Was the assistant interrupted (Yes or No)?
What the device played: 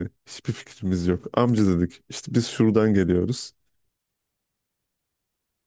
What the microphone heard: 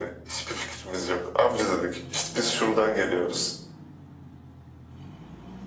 No